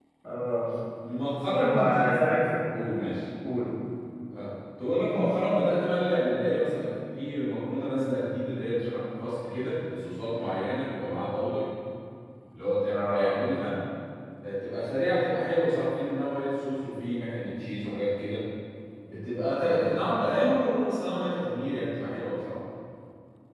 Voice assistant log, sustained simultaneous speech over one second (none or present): none